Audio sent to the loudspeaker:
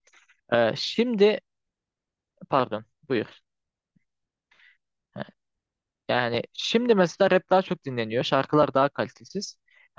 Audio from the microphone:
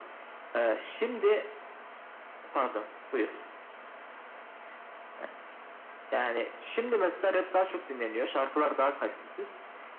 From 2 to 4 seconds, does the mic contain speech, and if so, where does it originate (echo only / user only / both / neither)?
echo only